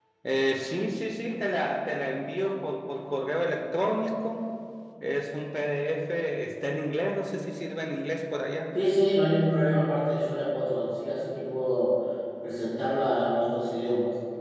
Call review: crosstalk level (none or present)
none